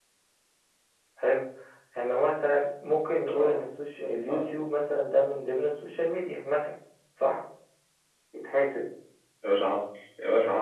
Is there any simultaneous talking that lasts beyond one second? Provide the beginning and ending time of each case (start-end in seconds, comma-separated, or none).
none